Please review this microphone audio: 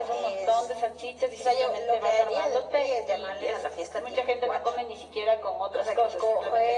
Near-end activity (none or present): none